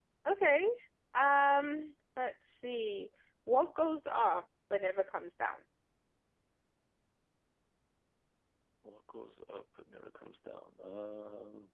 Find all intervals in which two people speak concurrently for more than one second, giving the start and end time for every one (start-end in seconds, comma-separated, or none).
none